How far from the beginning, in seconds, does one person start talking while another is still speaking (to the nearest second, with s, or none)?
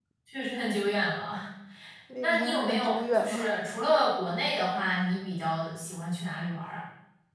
2 s